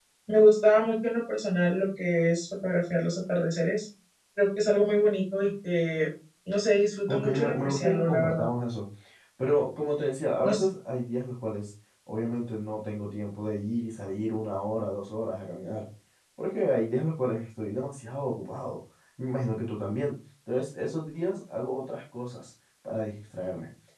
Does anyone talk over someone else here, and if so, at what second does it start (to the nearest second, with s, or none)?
7 s